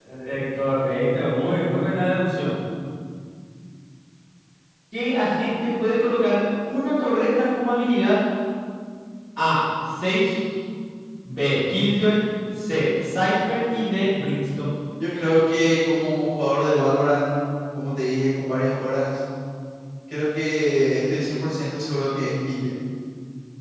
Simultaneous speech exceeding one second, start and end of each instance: none

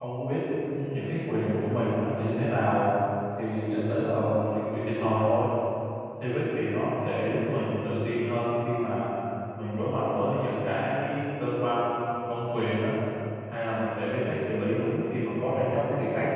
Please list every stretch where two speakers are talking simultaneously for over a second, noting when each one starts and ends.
none

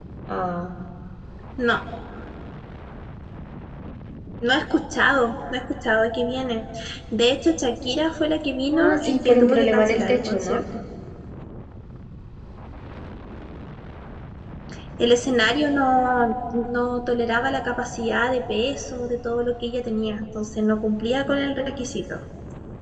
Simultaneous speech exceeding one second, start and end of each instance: 8.7-10.6

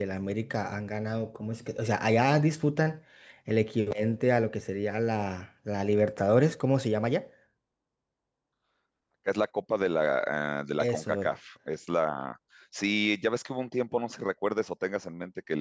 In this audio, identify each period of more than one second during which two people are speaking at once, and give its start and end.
none

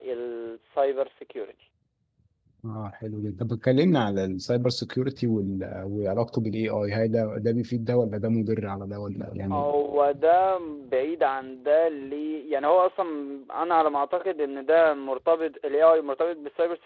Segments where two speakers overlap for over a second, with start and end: none

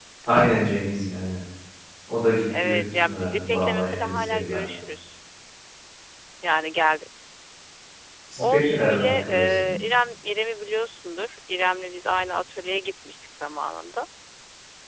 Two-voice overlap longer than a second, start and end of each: 2.6-4.7, 8.4-9.8

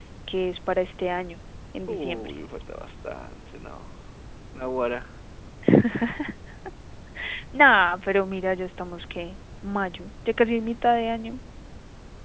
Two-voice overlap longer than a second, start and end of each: none

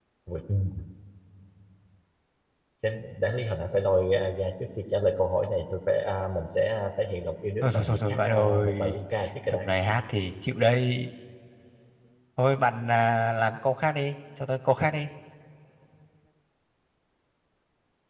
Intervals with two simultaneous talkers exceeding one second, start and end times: 7.6-9.0

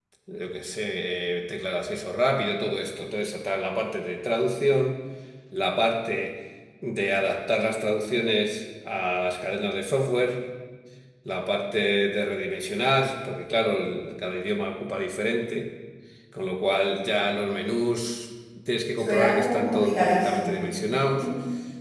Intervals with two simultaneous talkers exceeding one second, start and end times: 19.0-20.6

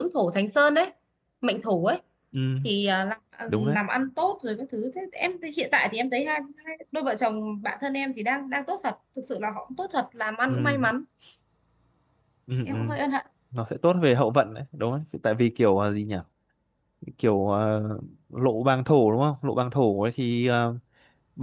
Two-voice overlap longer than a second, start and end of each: none

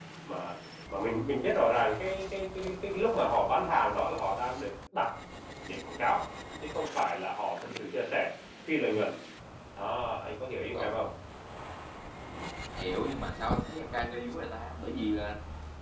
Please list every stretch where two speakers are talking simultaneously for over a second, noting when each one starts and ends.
none

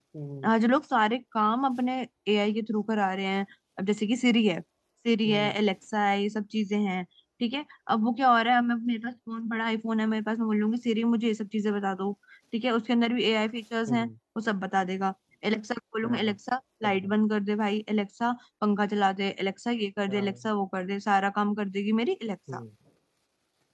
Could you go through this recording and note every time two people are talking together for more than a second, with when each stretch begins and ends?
none

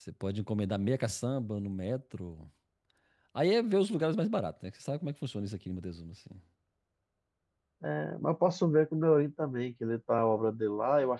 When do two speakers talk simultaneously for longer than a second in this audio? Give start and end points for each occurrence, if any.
none

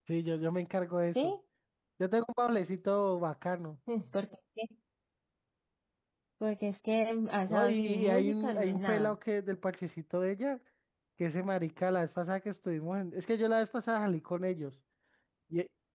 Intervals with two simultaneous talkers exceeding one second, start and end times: 7.5-9.2

